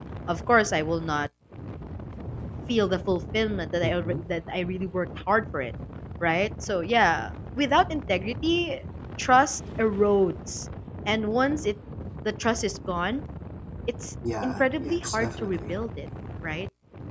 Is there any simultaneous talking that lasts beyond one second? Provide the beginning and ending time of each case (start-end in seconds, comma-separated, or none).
14.4-15.8